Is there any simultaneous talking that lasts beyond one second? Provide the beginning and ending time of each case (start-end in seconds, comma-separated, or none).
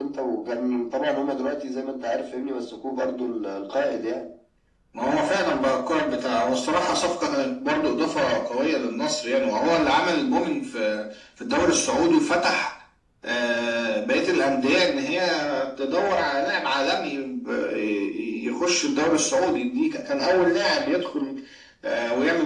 none